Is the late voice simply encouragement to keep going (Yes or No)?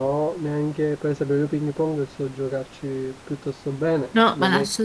No